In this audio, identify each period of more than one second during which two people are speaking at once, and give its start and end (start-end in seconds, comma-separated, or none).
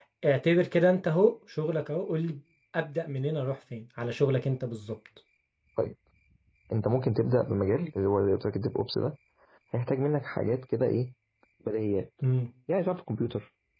none